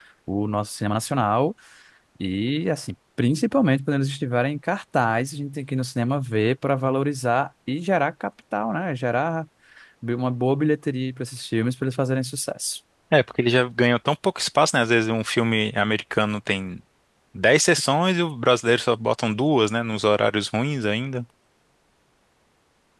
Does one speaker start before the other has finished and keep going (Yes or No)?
No